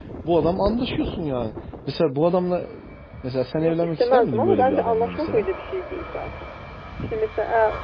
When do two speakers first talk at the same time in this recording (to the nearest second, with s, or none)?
4 s